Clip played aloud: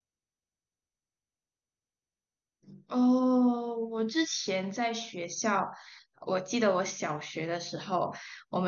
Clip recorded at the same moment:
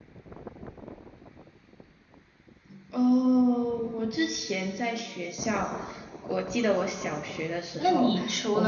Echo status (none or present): present